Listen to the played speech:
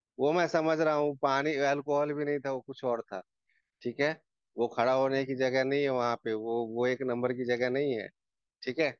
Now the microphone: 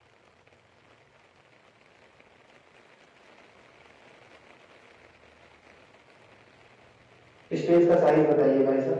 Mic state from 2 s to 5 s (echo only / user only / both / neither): neither